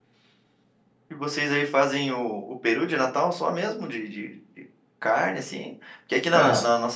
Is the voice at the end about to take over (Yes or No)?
No